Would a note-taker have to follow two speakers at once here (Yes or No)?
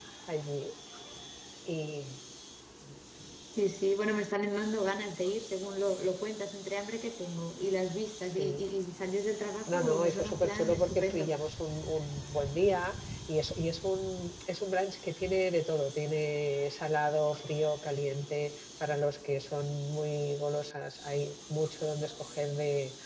Yes